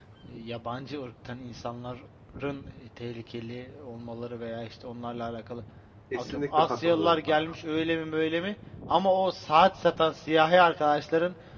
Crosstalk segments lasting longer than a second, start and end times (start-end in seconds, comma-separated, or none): 6.1-7.4